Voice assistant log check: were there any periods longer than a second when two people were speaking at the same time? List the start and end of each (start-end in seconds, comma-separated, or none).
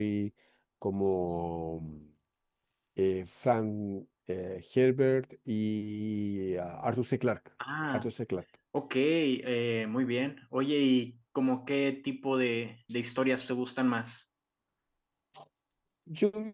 none